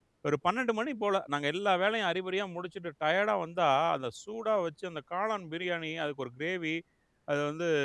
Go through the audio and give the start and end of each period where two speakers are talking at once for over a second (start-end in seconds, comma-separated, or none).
none